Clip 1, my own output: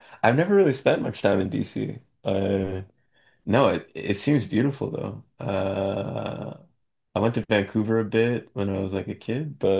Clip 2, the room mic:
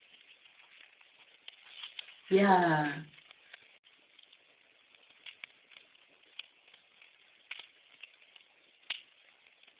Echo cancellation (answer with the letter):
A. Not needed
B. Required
A